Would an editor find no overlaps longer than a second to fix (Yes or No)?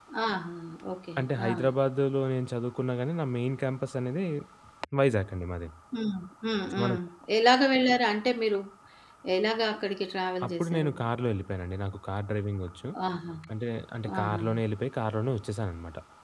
Yes